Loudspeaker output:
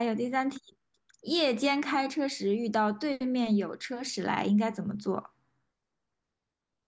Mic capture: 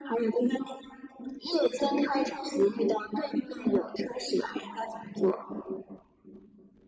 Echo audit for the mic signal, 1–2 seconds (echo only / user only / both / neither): echo only